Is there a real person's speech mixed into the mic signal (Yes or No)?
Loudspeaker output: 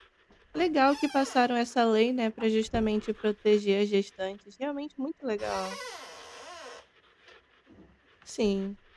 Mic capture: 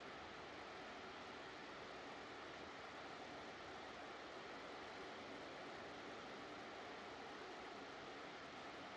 No